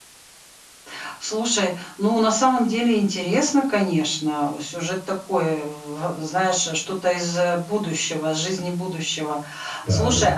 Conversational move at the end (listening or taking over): listening